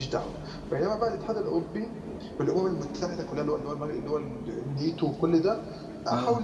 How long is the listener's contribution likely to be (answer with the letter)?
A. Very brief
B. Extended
A